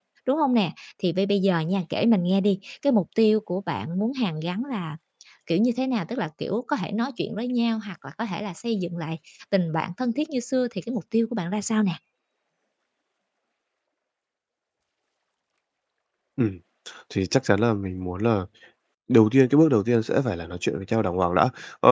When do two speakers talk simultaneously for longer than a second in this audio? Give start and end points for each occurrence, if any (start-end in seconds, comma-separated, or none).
none